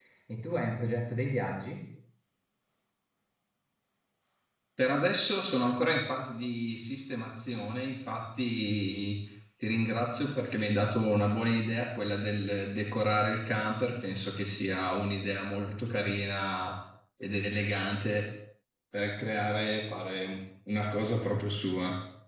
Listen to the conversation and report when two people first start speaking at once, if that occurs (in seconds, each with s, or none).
none